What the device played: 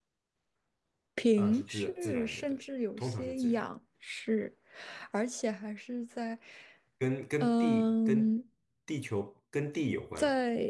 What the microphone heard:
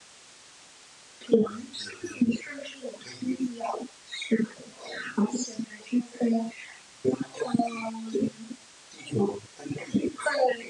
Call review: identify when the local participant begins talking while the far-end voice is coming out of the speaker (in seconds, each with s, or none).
none